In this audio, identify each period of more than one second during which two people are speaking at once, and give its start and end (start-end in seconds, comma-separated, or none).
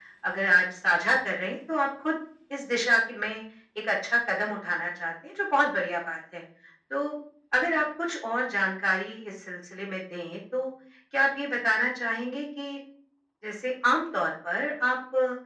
none